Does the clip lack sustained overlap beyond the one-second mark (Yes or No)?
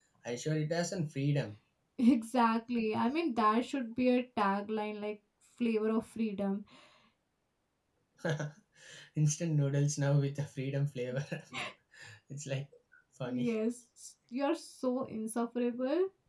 Yes